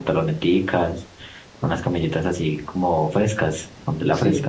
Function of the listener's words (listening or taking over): taking over